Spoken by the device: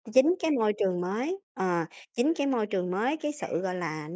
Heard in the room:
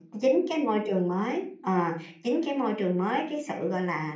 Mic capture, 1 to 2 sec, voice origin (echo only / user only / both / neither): echo only